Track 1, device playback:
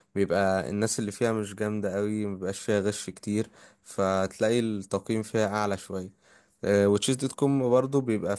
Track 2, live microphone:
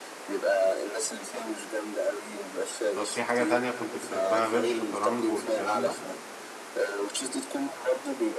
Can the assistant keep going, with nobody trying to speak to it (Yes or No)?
No